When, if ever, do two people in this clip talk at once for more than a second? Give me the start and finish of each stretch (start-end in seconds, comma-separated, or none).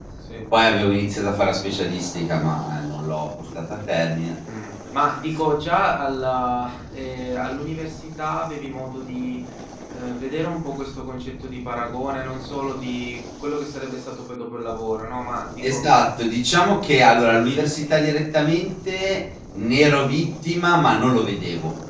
none